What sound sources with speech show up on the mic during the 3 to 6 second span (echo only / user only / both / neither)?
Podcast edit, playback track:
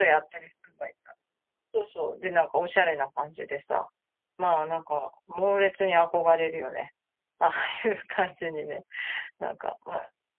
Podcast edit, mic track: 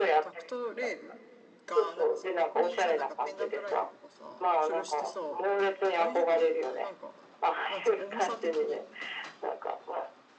both